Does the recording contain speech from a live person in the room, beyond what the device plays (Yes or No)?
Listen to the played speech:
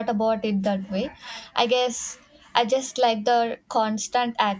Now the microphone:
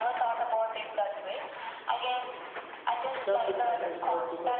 Yes